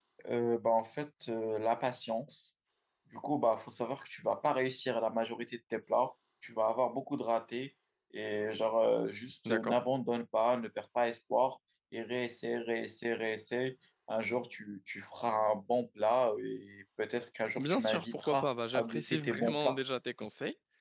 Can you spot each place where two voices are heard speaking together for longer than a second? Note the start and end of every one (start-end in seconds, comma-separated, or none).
17.6-19.8